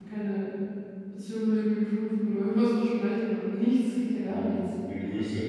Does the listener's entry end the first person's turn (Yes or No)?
Yes